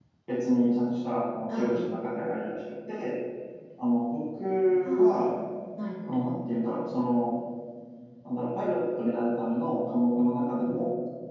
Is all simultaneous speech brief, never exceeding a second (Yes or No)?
Yes